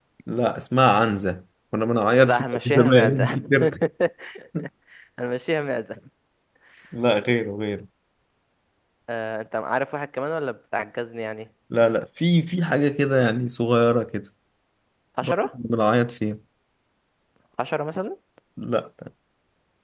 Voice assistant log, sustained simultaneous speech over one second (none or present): present